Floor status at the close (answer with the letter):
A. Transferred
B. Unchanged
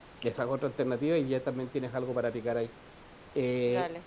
B